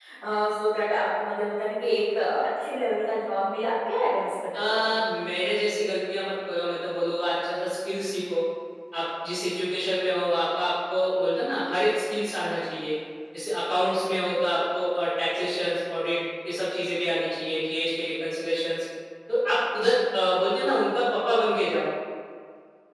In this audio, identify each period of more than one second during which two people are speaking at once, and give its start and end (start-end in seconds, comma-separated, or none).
none